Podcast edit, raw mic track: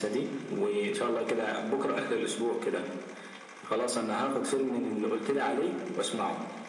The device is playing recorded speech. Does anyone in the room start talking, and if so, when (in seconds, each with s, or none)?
none